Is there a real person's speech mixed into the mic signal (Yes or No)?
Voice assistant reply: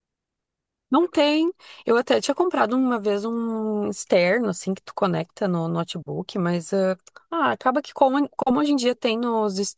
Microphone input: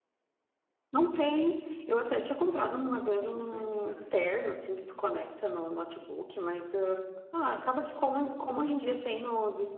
Yes